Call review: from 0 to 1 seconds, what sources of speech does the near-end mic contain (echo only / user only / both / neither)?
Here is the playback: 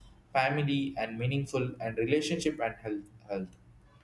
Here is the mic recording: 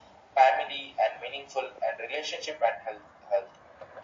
echo only